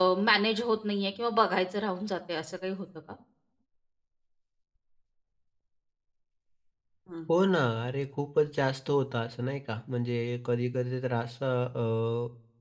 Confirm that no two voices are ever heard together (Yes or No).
Yes